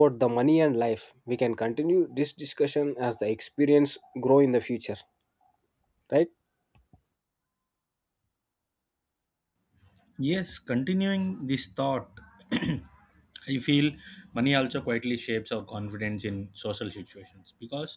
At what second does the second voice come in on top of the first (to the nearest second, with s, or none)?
none